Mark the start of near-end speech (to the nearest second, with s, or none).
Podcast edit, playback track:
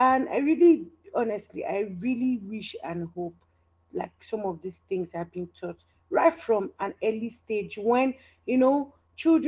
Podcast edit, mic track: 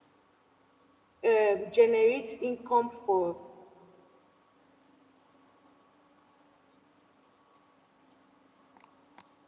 1 s